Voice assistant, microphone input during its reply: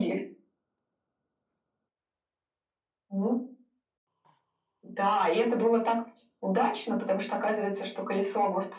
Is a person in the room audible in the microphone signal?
No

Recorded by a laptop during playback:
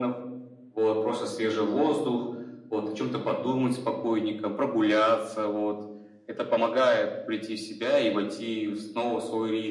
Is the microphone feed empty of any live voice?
Yes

